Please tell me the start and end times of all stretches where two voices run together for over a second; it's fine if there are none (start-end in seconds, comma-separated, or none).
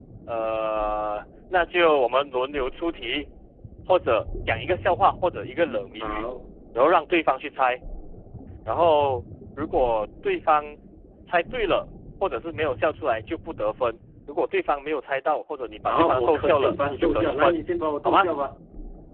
15.9-17.6